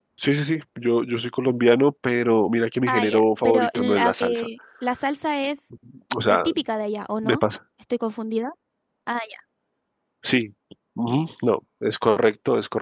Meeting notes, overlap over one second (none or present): present